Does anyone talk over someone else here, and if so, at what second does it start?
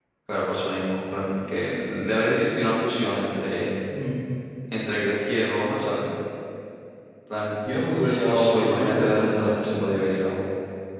8.3 s

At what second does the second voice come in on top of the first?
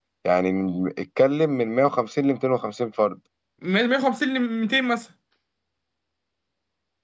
none

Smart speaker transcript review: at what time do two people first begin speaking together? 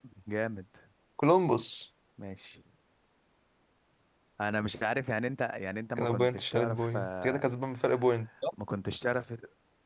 6.0 s

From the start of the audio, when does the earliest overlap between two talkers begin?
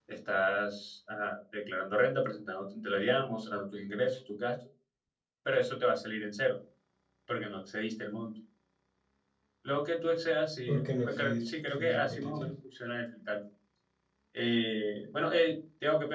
10.7 s

